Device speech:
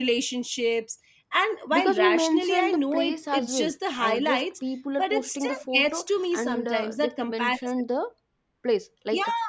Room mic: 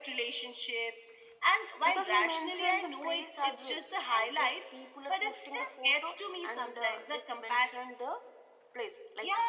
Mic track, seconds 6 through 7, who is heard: echo only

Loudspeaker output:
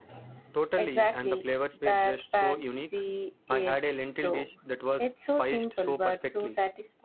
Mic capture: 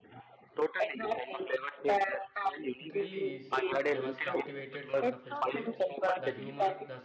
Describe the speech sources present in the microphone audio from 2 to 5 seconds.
both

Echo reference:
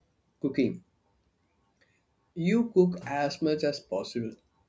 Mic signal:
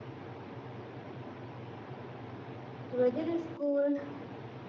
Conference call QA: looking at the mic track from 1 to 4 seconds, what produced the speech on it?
user only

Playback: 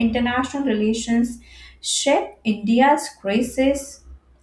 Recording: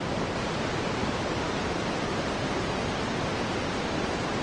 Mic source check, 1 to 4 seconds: neither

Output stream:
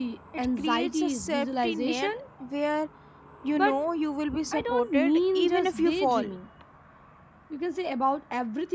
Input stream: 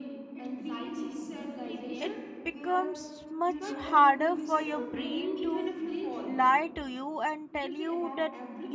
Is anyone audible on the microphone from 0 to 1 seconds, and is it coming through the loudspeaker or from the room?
echo only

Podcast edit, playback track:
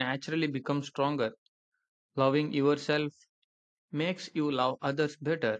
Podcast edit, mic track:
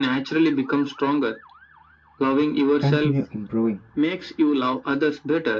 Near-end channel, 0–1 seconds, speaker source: echo only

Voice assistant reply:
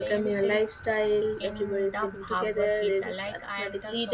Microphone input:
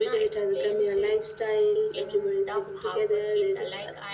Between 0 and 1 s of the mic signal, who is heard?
echo only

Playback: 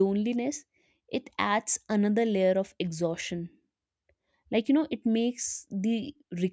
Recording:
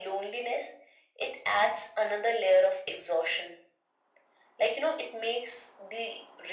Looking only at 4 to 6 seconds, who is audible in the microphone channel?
echo only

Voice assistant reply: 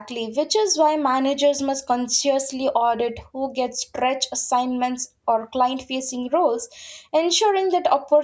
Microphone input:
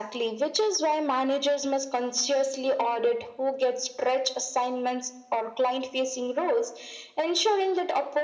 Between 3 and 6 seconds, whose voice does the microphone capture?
echo only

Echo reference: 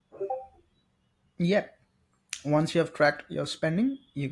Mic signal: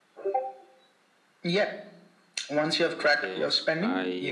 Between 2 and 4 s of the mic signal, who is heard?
both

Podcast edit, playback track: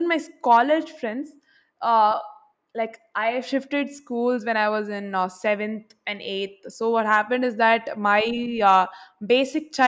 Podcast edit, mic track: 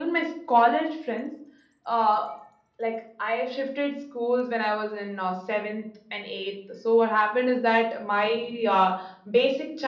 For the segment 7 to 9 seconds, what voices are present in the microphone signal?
echo only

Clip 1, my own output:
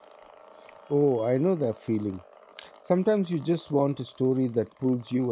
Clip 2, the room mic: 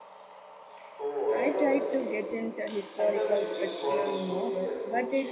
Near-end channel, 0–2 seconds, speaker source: both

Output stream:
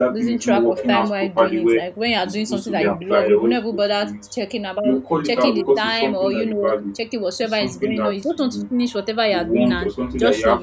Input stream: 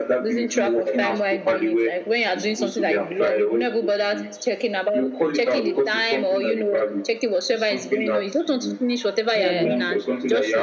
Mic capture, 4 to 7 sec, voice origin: echo only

